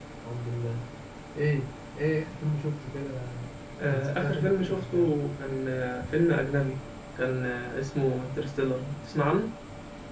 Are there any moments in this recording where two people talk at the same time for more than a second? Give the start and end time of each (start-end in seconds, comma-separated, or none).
3.9-5.1